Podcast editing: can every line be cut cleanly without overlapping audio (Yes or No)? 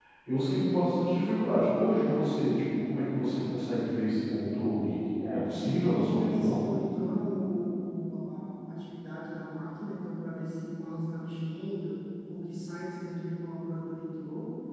No